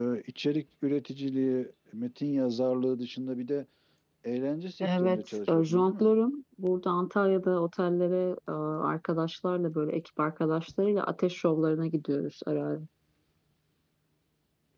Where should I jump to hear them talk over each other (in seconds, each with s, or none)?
4.8 s